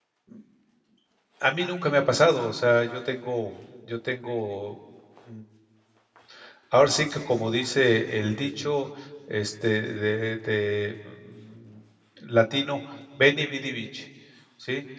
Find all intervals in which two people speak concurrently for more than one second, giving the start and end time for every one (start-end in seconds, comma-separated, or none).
none